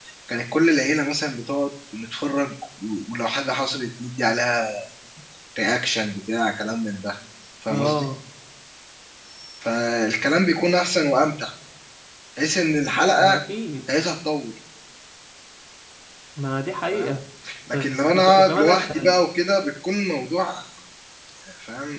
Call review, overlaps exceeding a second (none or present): present